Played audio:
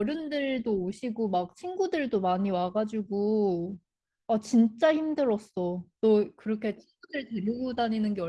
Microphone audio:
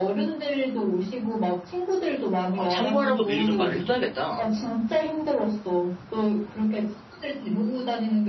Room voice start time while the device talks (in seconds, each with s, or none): 2.6 s